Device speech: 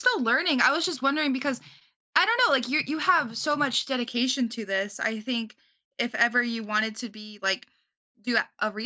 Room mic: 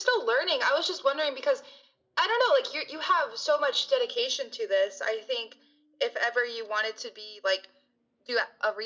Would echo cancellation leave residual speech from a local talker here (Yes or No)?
No